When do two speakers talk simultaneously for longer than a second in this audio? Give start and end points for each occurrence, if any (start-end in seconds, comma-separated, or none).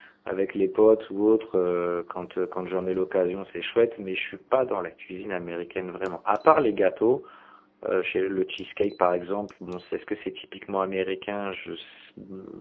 none